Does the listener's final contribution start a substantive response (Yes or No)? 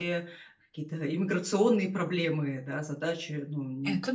No